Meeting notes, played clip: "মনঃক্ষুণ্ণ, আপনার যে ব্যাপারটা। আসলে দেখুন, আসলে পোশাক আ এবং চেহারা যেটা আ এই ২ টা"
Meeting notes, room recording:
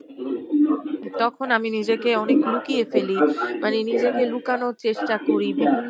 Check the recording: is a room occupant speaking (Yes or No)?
Yes